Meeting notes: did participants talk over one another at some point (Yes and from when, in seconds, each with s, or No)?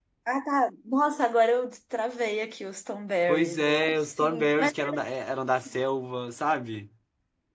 Yes, from 3.3 s